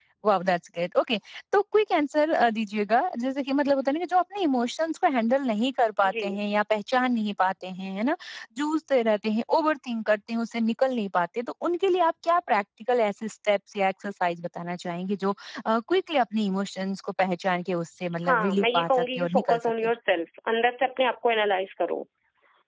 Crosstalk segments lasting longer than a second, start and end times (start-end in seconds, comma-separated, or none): 18.2-19.9